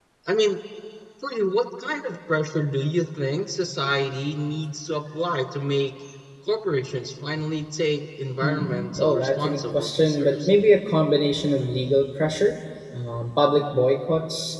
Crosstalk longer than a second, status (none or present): present